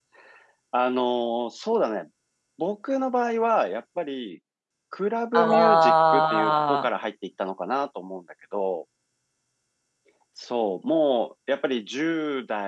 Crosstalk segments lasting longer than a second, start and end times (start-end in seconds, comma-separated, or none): 5.3-6.9